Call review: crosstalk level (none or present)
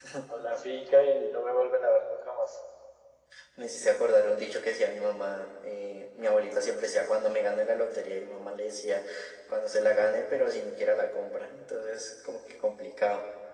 none